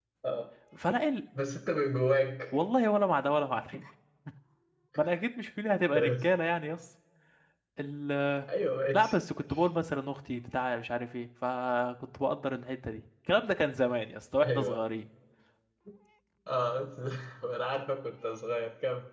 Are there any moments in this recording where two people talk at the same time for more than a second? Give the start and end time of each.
none

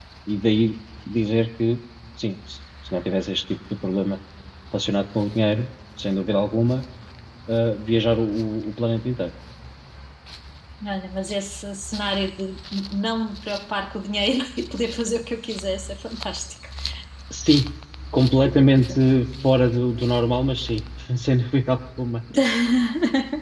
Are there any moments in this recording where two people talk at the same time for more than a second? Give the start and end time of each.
none

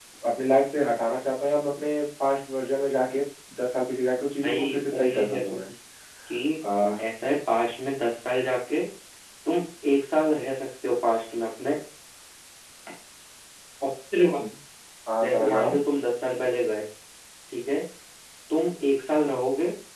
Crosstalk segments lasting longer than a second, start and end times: 4.4-5.7

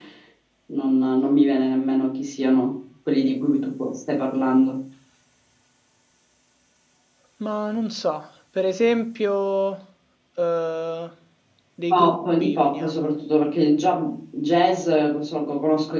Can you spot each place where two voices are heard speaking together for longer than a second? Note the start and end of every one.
11.9-13.1

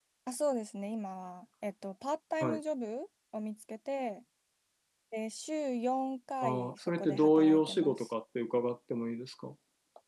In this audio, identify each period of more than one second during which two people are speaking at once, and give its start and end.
6.4-8.1

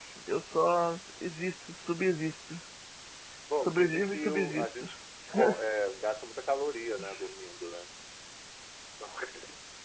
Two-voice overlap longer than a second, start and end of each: 3.6-4.9

